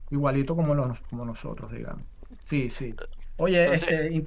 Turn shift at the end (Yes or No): No